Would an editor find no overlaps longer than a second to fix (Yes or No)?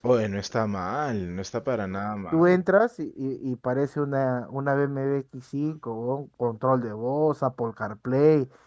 Yes